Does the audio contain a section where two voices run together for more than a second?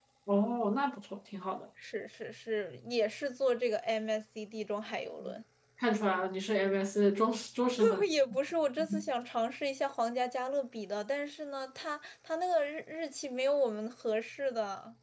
No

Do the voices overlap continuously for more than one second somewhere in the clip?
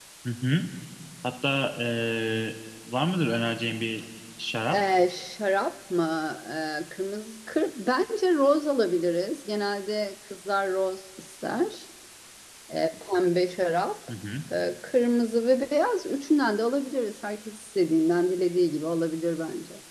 No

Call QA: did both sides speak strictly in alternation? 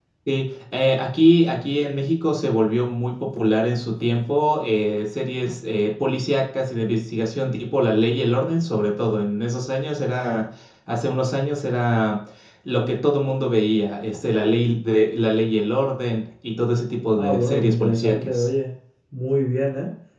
No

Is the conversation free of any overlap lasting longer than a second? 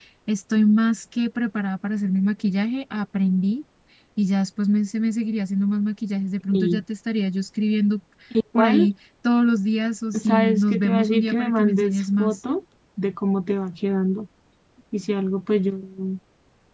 No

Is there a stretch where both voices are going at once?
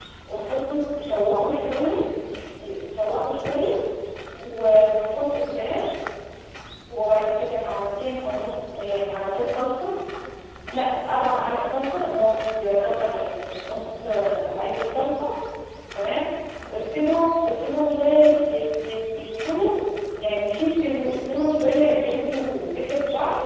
No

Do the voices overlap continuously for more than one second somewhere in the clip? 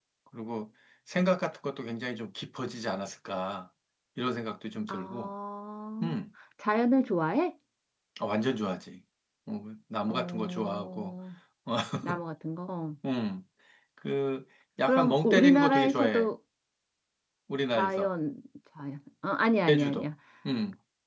Yes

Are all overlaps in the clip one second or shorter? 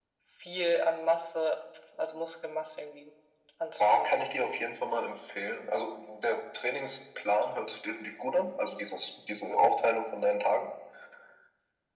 Yes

